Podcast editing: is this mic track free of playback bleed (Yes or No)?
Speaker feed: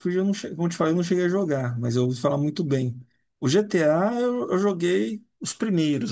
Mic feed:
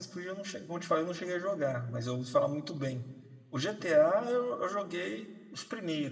No